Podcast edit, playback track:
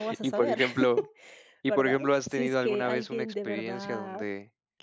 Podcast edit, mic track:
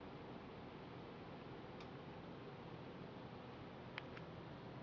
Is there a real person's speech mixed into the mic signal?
No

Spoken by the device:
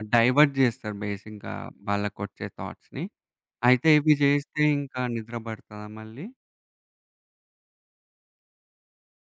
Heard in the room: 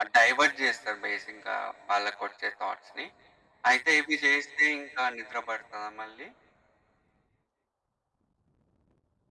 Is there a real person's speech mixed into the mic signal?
No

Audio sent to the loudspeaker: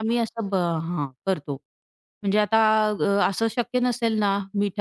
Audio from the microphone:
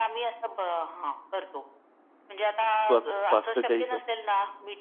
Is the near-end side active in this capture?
Yes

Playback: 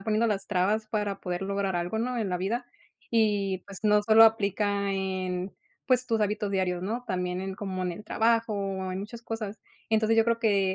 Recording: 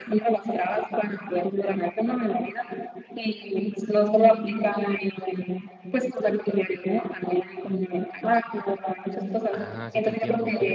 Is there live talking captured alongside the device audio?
Yes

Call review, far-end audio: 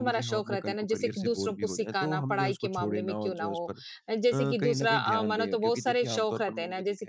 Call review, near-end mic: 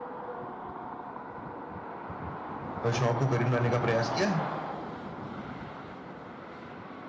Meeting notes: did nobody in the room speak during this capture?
No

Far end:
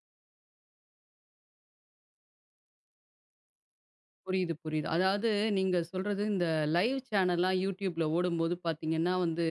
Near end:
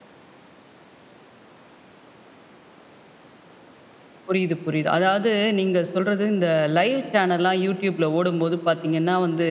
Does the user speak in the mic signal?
No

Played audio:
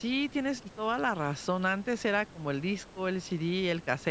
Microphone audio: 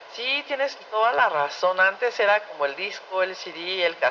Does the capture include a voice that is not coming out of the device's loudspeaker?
No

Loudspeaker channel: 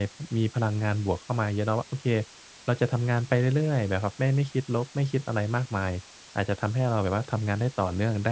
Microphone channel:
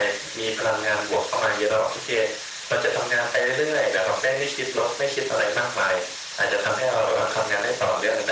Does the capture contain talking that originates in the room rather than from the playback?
No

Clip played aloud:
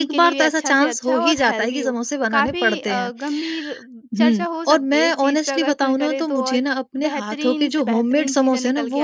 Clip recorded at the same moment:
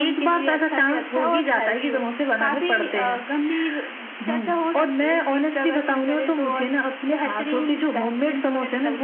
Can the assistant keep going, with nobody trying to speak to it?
Yes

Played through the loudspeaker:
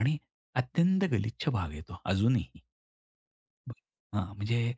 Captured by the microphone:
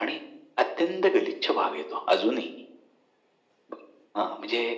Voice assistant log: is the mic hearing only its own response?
Yes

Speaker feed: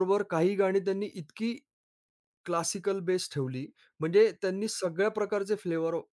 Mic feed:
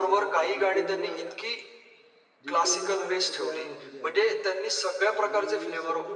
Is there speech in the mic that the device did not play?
Yes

